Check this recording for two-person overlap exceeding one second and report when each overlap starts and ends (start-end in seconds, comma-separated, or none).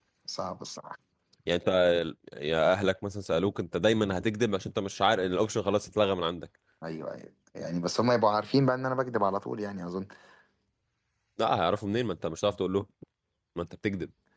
none